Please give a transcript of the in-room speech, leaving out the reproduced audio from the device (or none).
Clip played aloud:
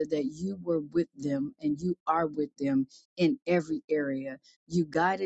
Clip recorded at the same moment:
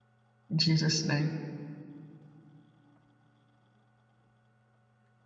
In Jesus' name,